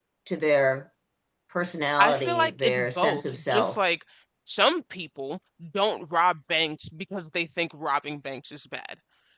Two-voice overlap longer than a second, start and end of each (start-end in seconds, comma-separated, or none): 2.0-3.8